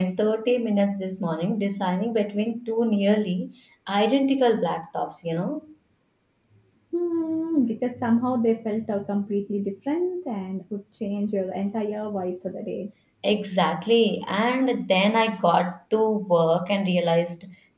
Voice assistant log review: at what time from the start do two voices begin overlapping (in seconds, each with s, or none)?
none